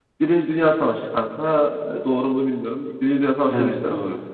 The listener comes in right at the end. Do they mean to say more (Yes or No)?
No